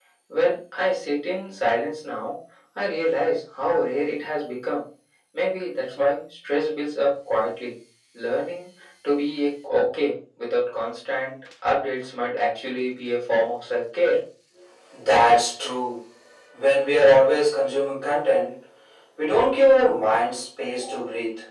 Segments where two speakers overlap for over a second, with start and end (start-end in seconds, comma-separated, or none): none